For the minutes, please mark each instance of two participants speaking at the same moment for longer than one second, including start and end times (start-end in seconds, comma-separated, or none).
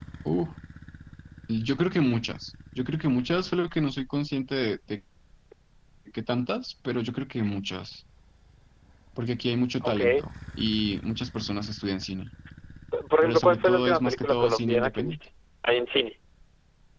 13.2-15.2